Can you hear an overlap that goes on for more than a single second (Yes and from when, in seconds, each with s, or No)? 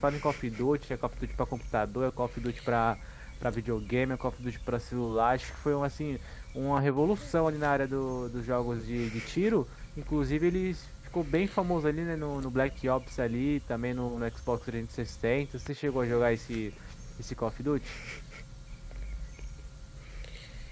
No